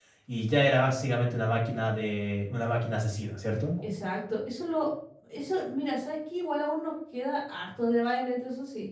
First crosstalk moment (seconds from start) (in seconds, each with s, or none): none